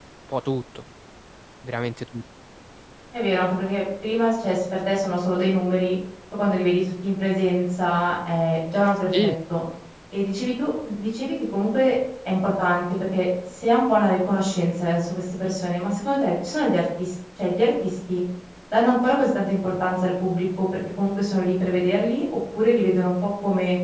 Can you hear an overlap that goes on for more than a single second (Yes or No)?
No